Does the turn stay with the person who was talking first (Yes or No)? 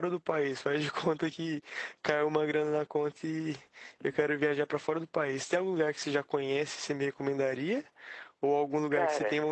Yes